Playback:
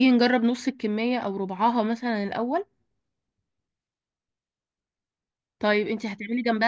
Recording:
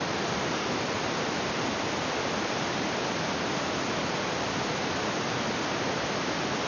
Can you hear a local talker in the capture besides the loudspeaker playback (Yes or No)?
No